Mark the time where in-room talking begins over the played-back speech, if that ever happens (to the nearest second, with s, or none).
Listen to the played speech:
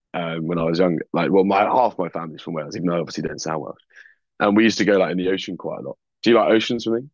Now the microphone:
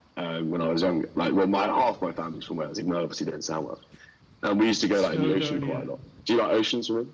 5 s